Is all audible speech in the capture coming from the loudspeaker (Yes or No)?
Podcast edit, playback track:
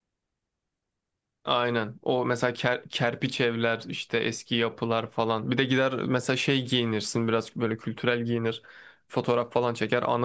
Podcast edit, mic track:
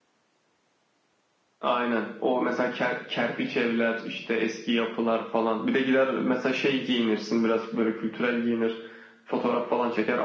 Yes